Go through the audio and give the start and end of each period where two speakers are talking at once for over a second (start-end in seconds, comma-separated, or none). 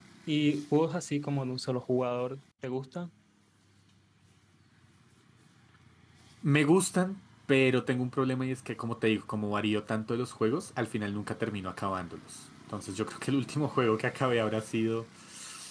none